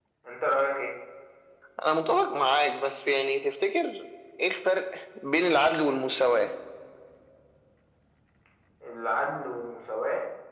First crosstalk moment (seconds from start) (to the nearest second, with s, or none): none